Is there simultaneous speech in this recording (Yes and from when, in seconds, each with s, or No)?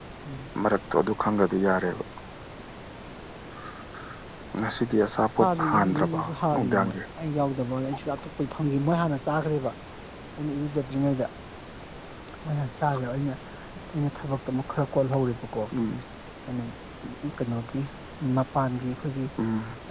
Yes, from 5.4 s